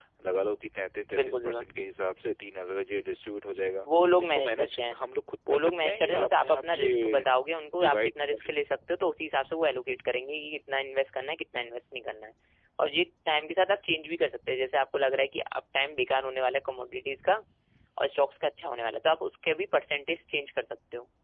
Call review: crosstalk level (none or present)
present